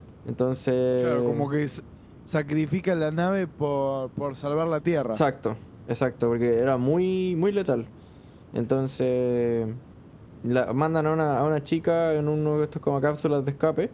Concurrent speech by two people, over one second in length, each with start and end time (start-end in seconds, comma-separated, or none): none